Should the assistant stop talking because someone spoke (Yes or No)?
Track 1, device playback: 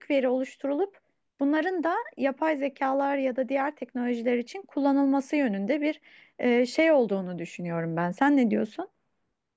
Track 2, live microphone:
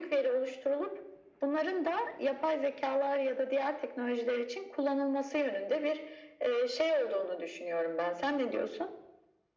No